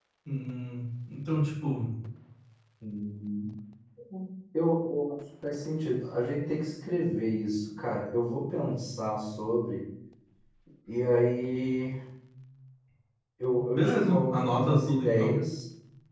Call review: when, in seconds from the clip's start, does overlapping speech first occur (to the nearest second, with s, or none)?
14 s